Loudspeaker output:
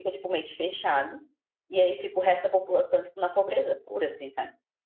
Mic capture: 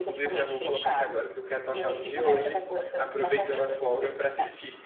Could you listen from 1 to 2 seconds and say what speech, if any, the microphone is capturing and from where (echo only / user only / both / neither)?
both